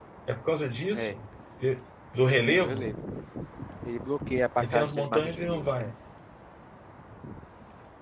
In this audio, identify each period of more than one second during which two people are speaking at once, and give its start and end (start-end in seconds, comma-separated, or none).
4.6-5.9